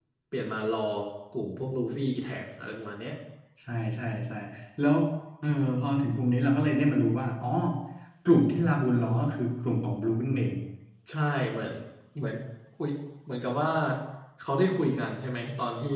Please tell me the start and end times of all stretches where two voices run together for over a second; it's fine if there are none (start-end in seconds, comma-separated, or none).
none